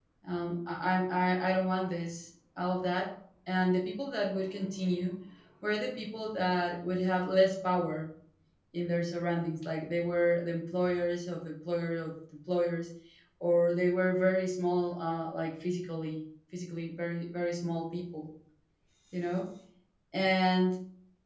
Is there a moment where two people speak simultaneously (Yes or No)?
No